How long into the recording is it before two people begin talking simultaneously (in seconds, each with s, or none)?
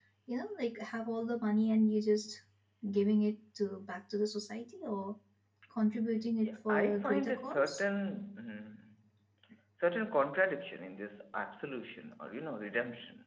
6.4 s